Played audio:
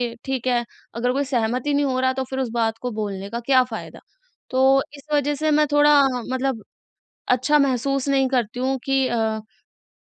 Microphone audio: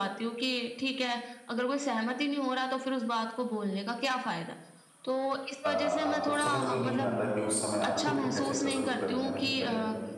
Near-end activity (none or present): present